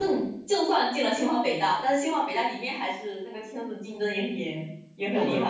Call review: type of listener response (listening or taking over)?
taking over